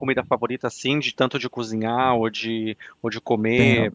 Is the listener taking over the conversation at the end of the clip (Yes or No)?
Yes